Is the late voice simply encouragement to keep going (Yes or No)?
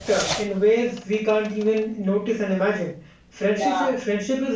Yes